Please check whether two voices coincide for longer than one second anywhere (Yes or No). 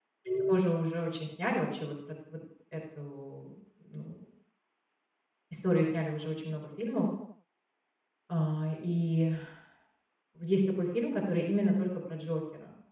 No